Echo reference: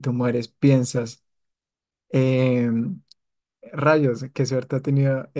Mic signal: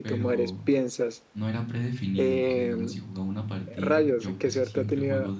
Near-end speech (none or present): present